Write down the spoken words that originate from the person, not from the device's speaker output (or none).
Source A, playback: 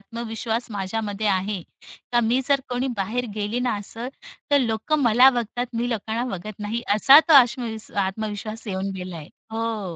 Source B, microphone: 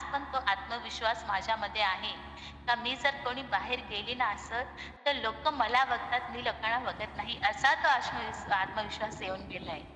none